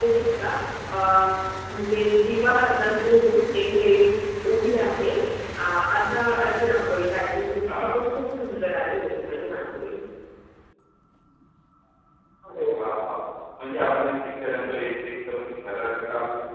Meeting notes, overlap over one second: none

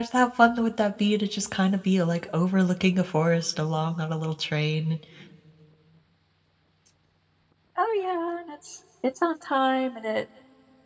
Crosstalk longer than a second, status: none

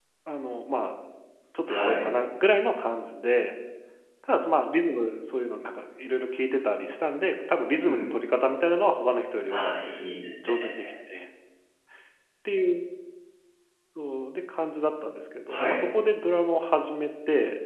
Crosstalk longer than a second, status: none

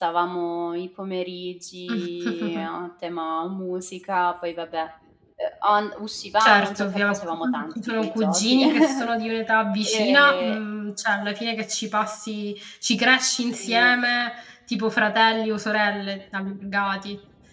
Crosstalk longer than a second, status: present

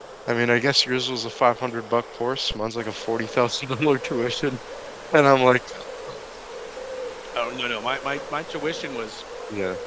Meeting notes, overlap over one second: none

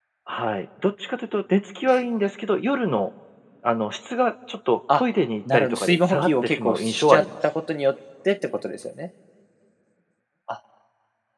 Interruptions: present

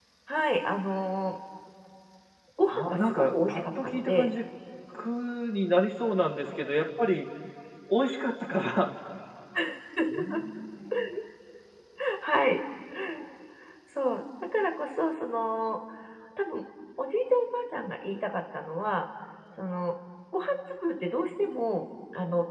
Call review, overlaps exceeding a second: present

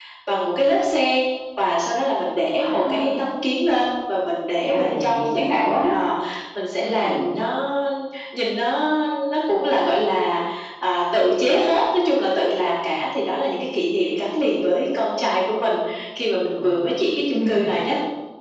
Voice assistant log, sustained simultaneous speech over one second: present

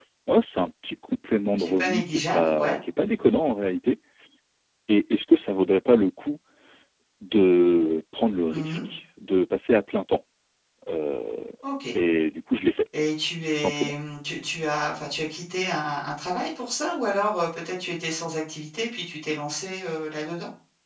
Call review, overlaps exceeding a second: present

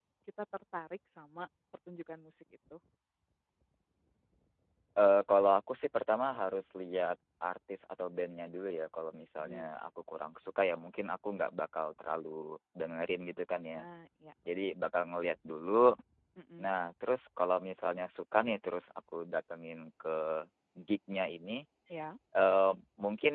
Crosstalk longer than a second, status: none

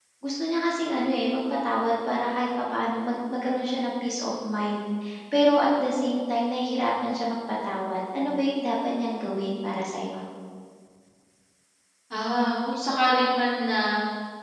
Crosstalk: none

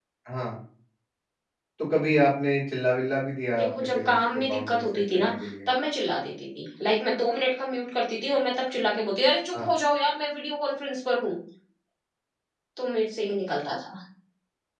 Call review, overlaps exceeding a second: present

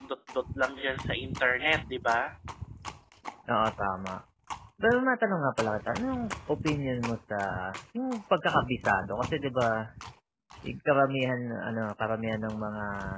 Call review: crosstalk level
none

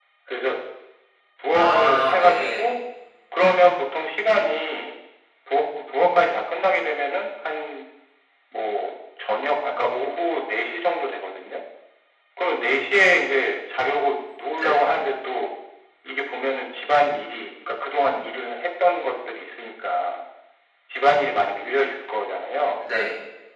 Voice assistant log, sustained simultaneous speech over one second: present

